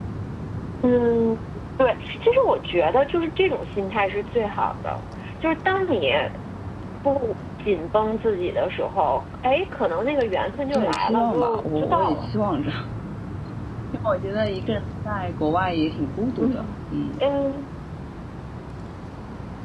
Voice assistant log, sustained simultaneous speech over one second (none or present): present